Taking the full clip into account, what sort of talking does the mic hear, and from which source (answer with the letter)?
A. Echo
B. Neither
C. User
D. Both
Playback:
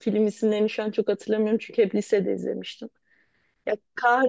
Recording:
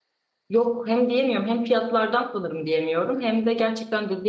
C